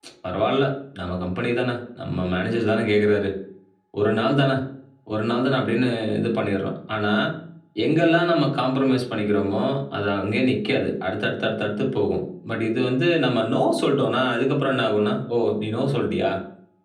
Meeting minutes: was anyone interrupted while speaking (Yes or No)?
No